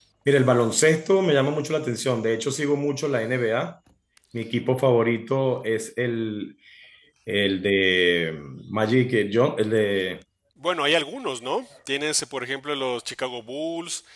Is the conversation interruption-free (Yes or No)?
Yes